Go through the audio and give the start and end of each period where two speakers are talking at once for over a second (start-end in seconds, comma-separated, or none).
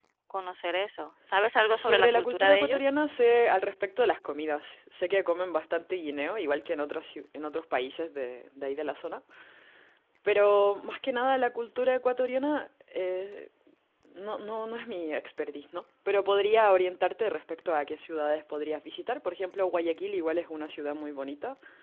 1.7-2.9